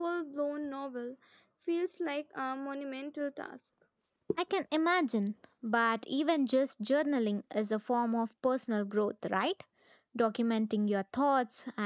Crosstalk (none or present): none